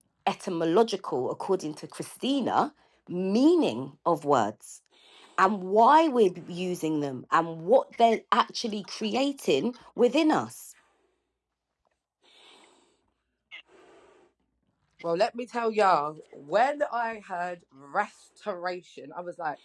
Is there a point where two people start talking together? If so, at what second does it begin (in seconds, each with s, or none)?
none